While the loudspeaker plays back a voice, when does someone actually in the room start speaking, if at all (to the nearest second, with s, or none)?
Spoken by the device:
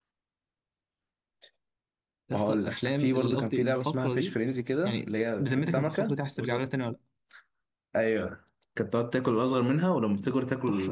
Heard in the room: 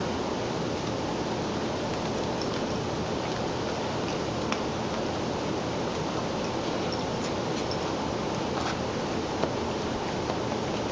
none